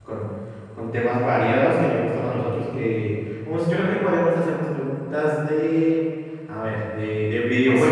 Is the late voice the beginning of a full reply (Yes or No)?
Yes